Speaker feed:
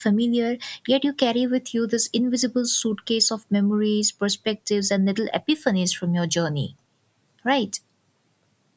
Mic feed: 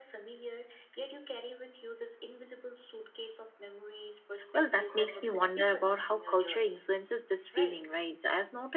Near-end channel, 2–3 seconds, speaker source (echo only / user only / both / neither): echo only